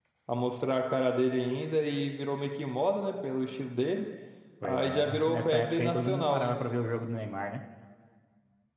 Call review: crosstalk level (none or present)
present